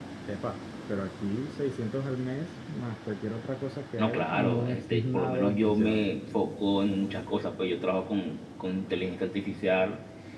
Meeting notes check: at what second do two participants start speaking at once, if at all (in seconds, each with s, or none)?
4.0 s